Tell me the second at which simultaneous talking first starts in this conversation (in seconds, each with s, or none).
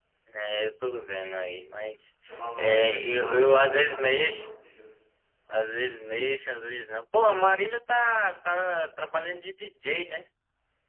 2.6 s